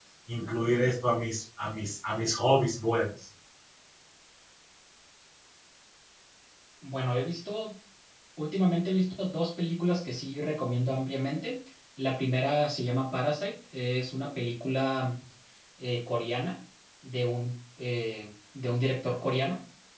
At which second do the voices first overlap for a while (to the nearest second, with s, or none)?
none